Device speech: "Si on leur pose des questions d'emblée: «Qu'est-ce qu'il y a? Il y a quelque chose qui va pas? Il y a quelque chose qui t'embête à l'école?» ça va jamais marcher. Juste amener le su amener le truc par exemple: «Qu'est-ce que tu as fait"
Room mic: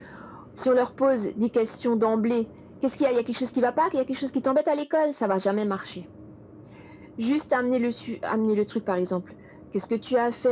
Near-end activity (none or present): none